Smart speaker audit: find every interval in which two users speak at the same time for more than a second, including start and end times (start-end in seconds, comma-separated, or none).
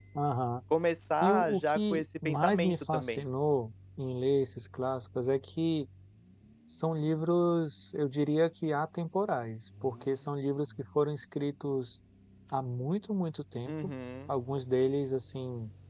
1.2-3.2